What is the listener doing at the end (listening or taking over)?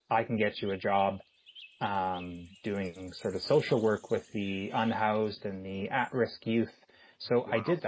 listening